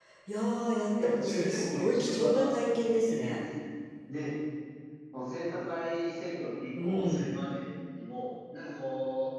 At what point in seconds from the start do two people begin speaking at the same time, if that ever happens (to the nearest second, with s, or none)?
1 s